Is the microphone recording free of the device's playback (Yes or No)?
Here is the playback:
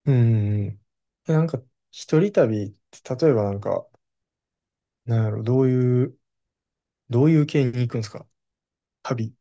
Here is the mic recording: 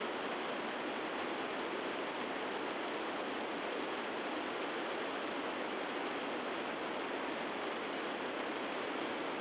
Yes